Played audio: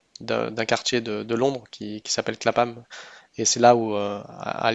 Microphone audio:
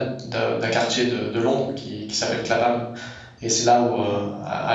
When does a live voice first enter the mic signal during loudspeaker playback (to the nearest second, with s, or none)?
none